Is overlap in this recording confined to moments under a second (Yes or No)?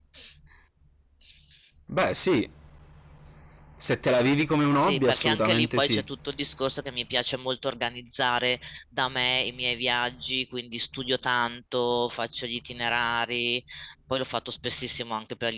No